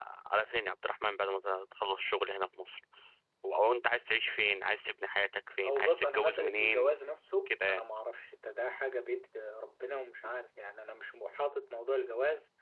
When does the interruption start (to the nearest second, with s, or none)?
6 s